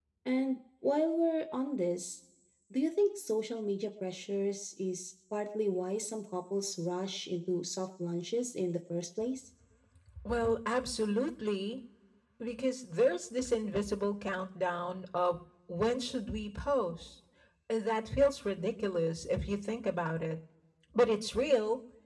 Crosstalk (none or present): none